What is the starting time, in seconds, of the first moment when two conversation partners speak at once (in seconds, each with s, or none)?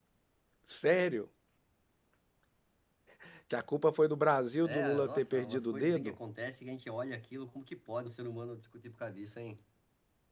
4.6 s